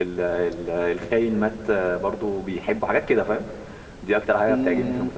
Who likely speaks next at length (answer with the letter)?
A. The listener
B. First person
A